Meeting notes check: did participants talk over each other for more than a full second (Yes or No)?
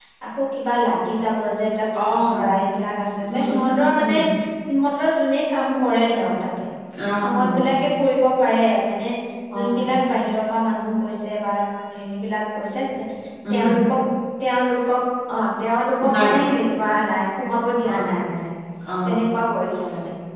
No